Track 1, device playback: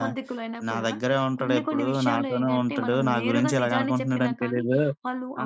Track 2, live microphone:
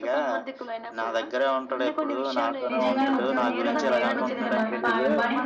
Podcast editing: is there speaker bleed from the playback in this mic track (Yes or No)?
Yes